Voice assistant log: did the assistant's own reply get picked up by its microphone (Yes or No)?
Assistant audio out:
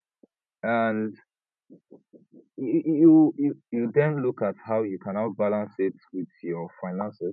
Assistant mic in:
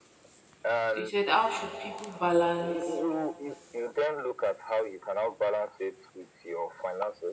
Yes